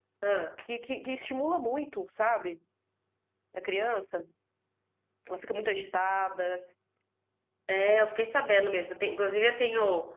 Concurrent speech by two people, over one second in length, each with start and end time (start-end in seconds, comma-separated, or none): none